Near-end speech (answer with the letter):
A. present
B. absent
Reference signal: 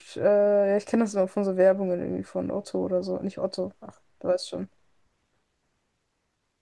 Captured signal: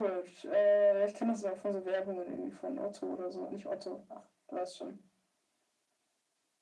B